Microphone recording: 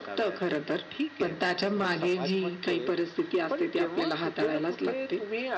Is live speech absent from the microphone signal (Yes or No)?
Yes